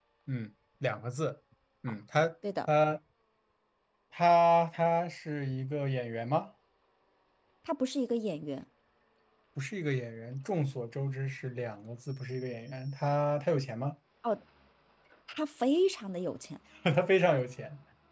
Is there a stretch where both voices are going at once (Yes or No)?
No